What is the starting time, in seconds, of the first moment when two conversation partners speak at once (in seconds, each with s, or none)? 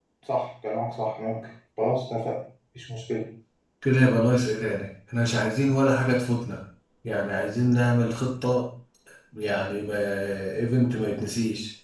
none